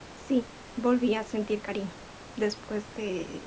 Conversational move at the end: listening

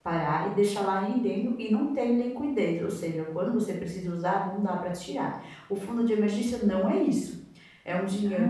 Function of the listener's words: listening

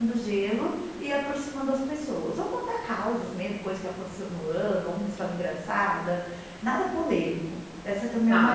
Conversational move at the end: taking over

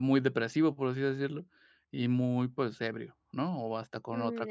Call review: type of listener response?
taking over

